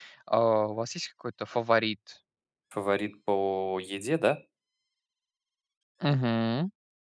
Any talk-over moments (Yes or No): No